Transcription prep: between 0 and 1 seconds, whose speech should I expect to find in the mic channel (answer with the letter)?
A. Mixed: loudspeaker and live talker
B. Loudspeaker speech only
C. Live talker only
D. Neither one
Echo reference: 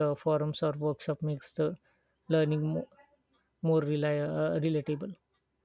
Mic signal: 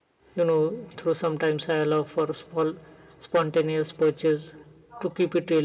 C